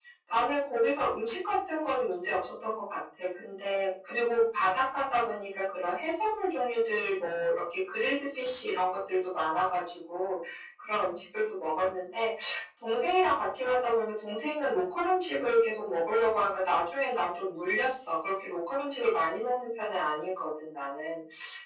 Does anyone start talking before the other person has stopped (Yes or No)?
No